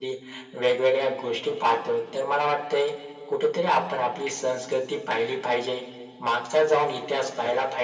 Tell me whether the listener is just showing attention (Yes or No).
Yes